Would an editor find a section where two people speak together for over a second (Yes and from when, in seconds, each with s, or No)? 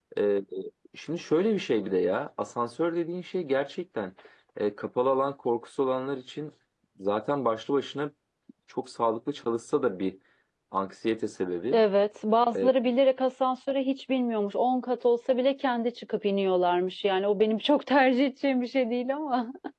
No